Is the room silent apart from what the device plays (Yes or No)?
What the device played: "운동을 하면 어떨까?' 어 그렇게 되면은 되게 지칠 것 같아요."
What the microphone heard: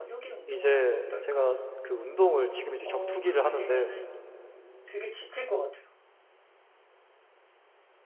No